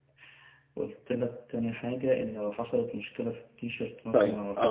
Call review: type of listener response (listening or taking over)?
taking over